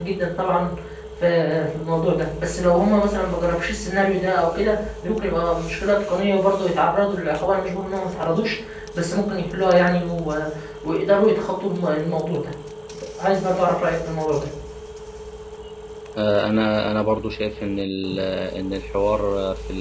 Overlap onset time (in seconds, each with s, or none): none